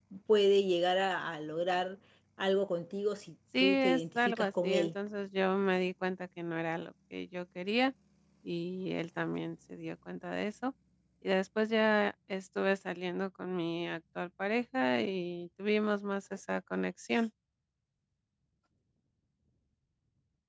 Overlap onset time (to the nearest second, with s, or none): 4 s